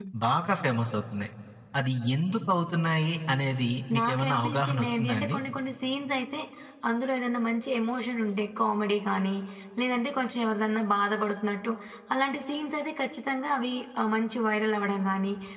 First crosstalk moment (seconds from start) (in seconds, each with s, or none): 3.9 s